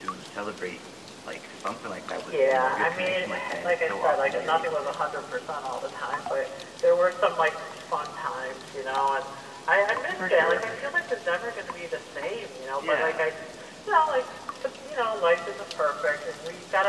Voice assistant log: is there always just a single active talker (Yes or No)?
No